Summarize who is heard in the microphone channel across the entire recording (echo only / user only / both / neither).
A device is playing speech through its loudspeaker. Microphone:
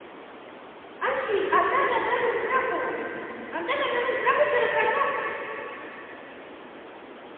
user only